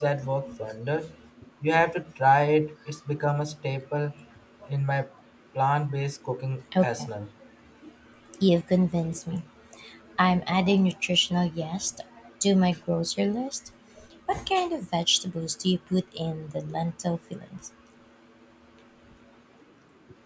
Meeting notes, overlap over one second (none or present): none